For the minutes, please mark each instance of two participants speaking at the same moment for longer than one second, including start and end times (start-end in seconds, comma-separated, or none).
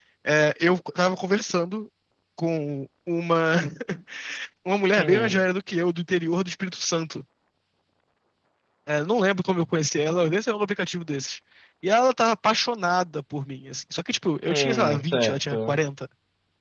14.5-15.8